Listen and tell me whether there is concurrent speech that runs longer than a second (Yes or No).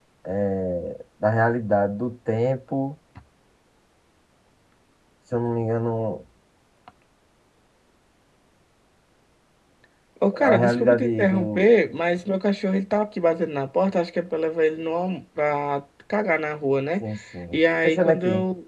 Yes